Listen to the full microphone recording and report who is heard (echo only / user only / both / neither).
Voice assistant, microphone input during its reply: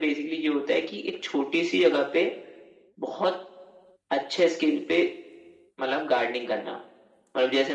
echo only